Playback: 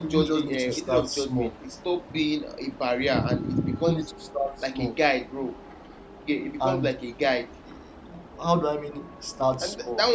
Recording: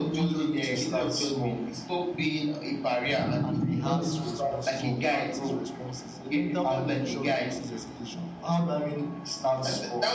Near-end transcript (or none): and rehearse responses, you know, practice responses. The mental preparation reduces hesitation.